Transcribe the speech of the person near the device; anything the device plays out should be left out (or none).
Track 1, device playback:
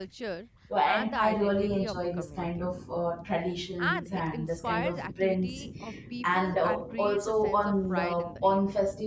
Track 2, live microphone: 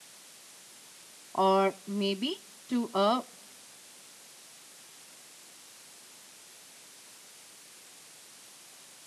or maybe to a